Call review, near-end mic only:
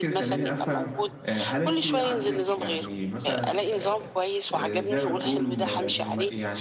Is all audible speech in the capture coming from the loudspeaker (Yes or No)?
No